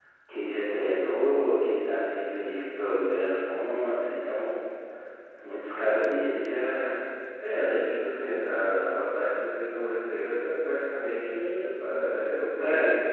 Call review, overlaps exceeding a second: none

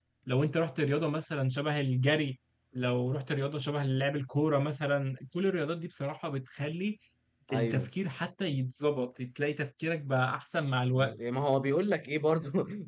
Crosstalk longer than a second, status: none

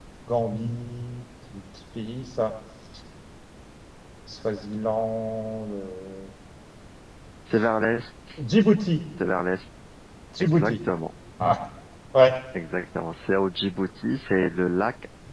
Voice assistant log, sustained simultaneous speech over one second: none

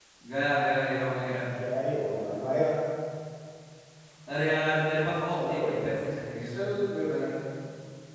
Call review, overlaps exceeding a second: none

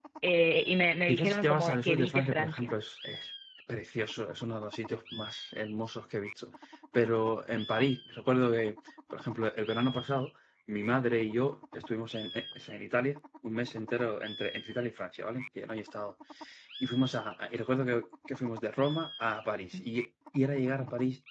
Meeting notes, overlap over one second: present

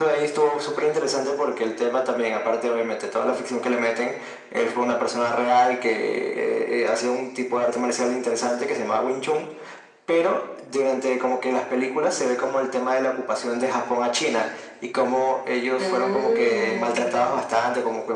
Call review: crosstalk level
present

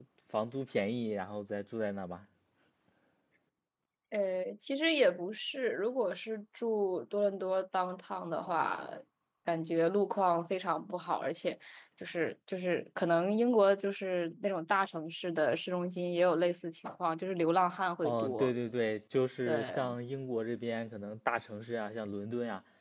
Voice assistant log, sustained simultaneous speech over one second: none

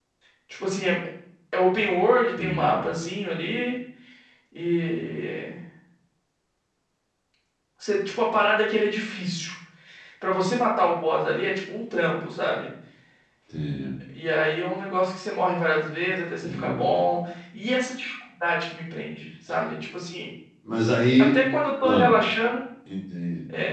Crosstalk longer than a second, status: none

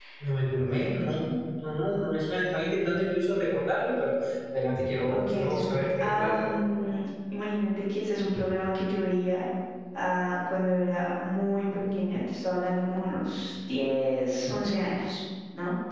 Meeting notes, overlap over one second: present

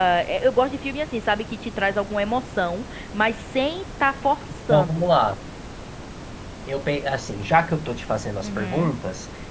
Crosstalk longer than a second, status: none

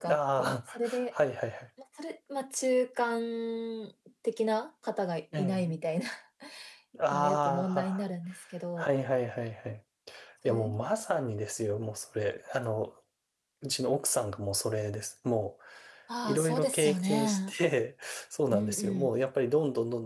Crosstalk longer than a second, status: present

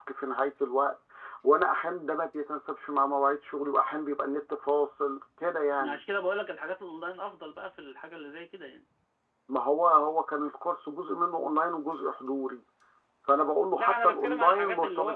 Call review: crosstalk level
present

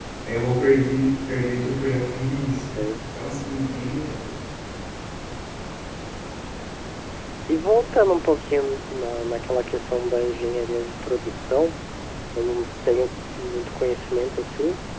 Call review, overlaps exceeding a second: none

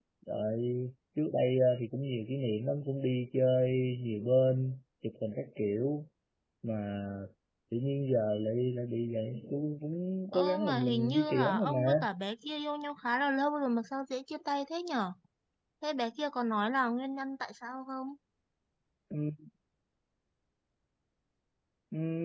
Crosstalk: present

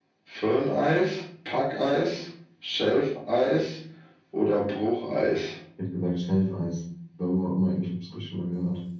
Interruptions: none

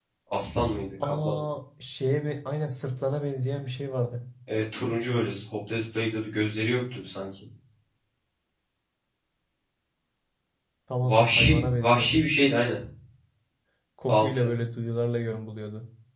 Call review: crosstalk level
present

